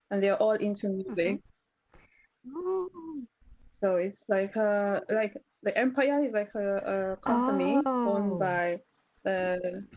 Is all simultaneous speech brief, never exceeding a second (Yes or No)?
No